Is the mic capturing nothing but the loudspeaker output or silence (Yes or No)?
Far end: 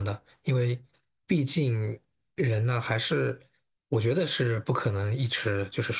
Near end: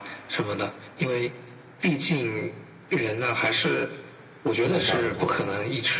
No